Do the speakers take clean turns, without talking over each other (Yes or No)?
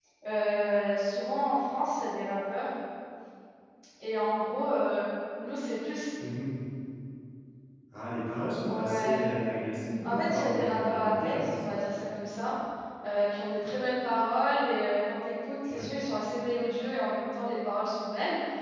No